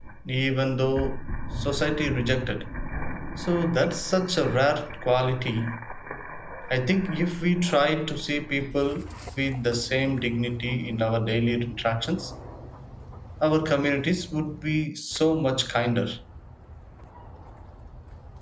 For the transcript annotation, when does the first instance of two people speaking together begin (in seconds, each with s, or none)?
none